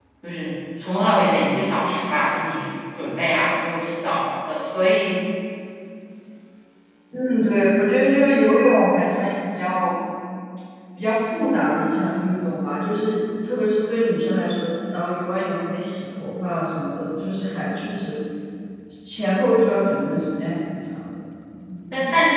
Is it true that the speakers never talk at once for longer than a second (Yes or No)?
Yes